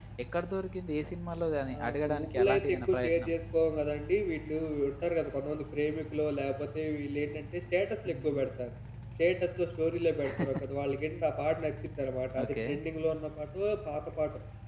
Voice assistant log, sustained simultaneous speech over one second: present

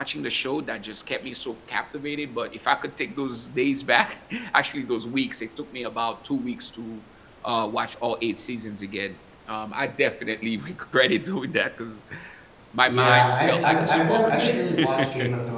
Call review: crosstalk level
present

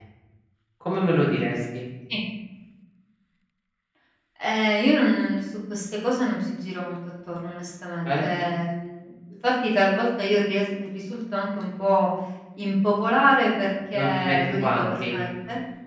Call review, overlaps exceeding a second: present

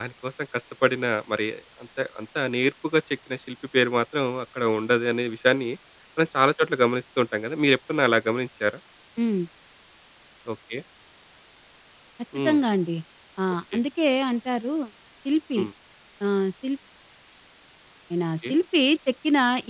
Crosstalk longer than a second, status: none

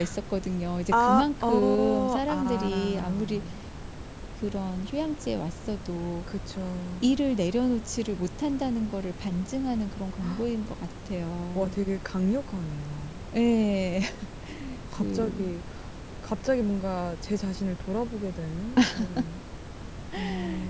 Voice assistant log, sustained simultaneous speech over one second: present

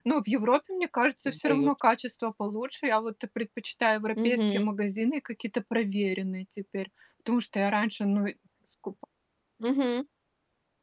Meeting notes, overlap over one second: none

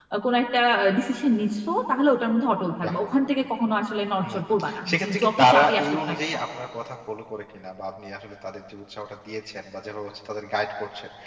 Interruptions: present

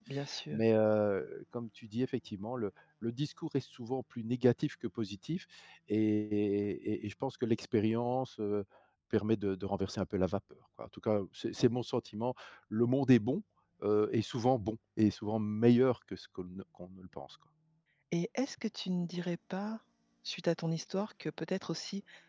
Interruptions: none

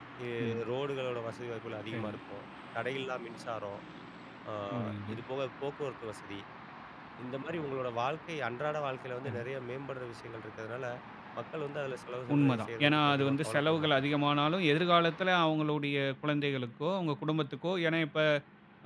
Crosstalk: present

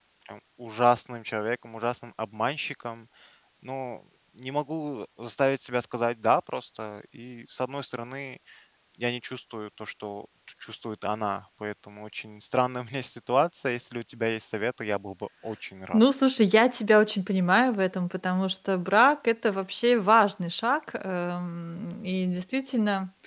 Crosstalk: none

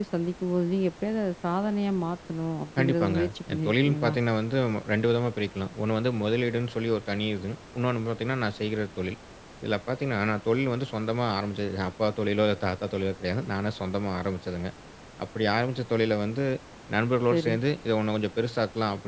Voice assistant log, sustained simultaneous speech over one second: present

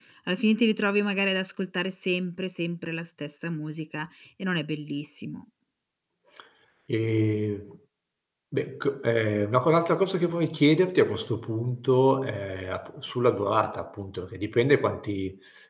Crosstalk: none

